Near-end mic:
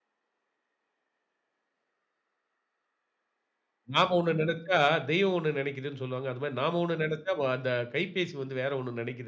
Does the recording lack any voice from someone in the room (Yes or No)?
No